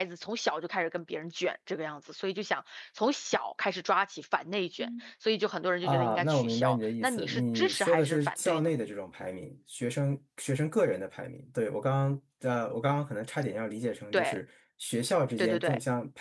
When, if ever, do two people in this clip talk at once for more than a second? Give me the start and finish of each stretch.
5.8-8.7

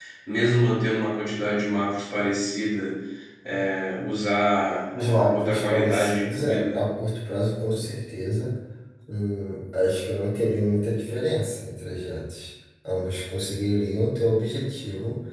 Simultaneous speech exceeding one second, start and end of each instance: 5.2-6.8

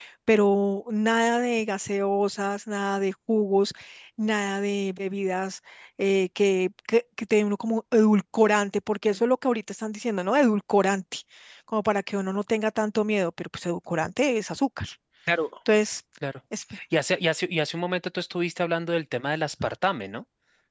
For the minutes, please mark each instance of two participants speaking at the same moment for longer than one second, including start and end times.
none

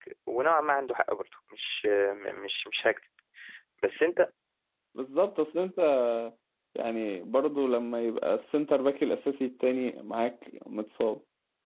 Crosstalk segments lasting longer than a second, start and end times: none

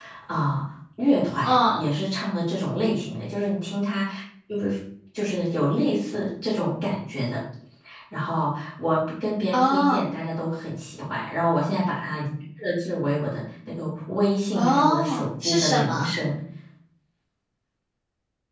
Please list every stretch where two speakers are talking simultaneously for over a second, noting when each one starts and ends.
14.6-16.1

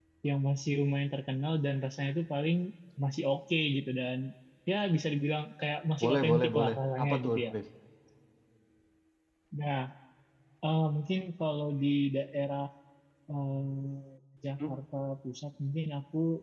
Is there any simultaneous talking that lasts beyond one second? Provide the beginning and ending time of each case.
6.0-7.5

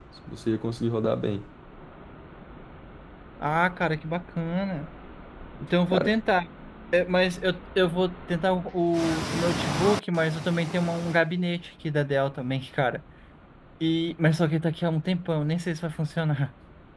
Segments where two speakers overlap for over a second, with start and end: none

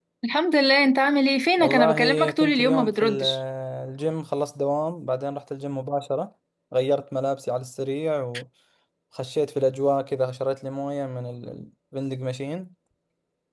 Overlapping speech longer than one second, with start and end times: 1.6-3.2

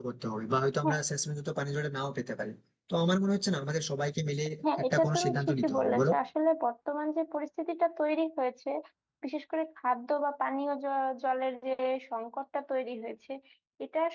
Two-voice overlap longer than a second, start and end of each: 4.8-6.1

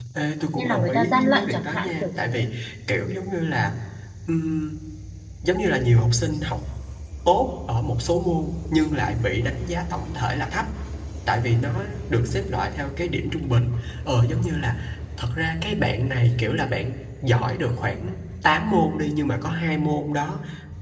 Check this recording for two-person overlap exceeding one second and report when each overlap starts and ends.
0.6-2.4

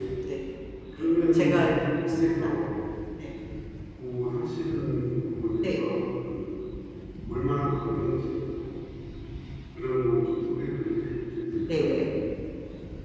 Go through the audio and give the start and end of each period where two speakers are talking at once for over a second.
1.0-2.5

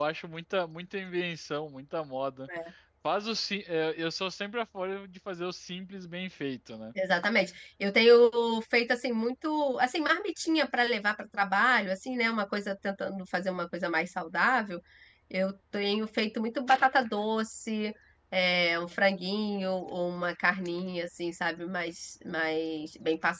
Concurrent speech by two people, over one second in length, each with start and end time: none

